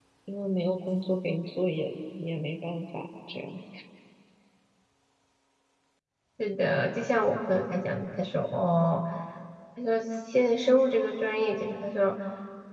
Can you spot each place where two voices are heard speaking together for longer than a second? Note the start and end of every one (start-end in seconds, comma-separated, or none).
none